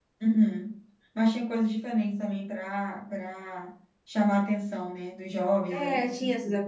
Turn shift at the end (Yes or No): Yes